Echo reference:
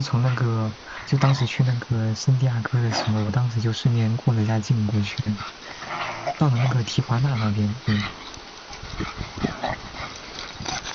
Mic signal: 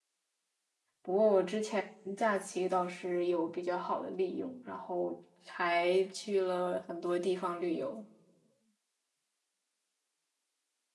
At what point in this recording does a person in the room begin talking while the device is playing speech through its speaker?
1 s

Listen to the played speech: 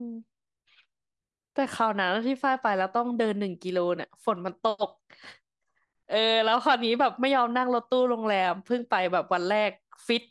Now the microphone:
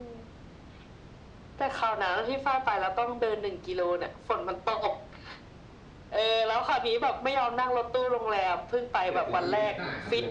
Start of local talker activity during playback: 9 s

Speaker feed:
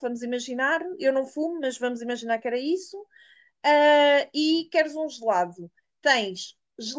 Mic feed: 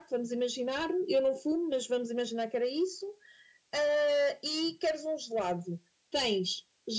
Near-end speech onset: none

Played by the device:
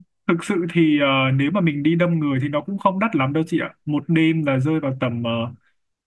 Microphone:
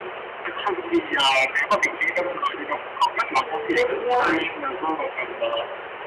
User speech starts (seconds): 3 s

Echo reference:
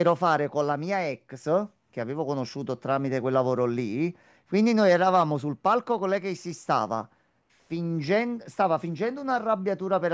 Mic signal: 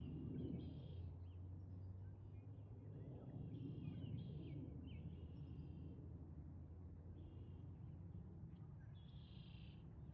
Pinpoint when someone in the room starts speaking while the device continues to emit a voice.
none

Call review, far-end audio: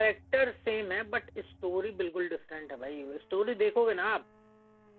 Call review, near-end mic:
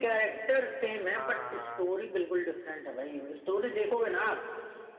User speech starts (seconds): 1 s

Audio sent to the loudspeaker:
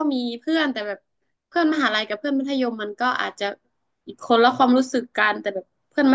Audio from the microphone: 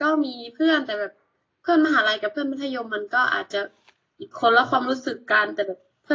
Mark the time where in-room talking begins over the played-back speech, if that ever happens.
none

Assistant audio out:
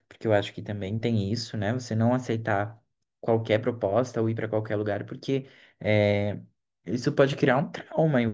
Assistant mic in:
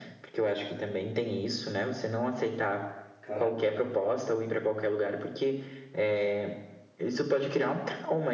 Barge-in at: 3 s

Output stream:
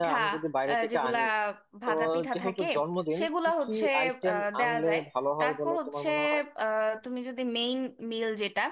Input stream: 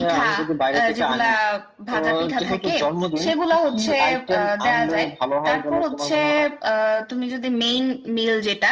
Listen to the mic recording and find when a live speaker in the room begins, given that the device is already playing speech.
none

